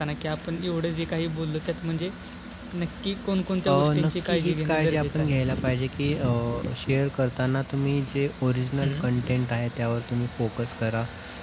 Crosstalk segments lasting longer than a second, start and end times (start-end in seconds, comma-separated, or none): 3.7-5.4